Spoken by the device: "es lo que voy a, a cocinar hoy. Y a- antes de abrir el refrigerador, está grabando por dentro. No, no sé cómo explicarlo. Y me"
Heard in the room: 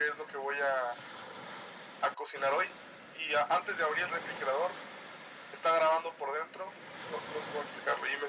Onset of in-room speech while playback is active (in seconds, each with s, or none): none